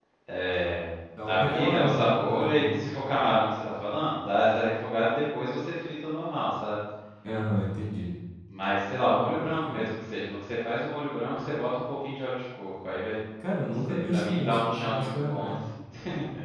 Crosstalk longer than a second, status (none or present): present